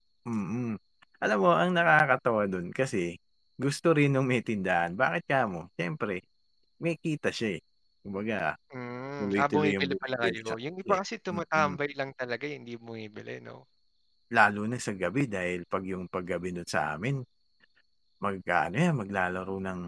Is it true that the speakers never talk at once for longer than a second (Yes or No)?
No